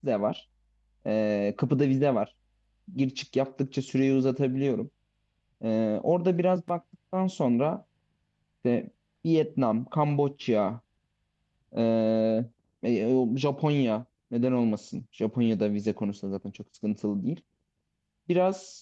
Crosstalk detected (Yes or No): No